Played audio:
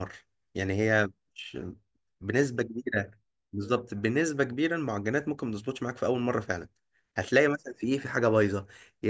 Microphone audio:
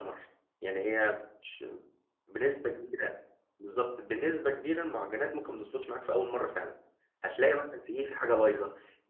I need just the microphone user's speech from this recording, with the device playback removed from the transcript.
none

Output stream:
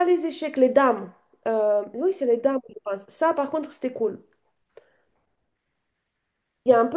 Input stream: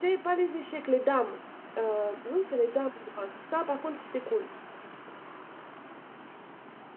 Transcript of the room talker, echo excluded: none

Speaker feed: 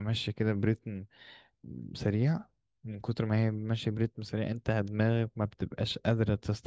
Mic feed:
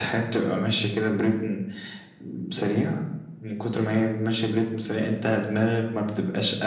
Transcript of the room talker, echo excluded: none

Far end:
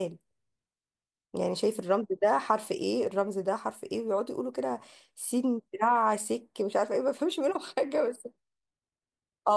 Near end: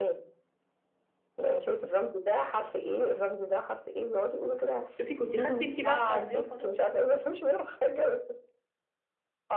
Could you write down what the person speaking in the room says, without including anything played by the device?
شوفي كنت خدتي انت بقى بتاع الضيافه ده

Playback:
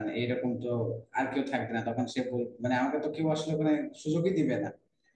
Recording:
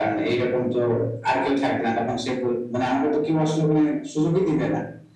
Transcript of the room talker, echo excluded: none

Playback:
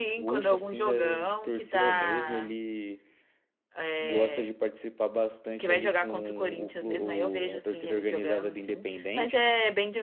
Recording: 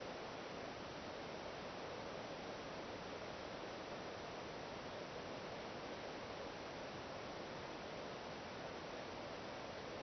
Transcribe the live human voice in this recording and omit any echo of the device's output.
none

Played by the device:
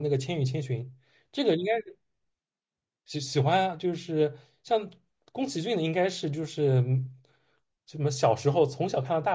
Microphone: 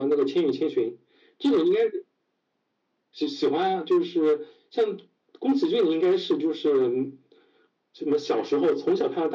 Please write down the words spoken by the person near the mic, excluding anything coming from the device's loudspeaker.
none

